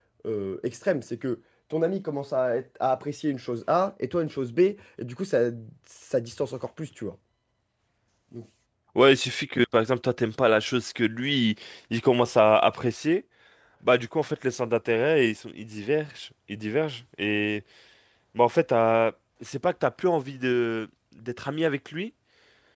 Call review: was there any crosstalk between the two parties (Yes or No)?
No